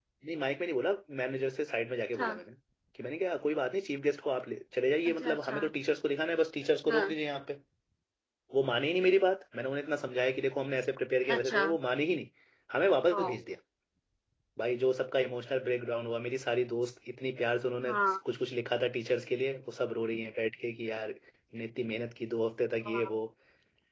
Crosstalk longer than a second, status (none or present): none